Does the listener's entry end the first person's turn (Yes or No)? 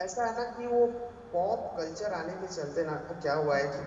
No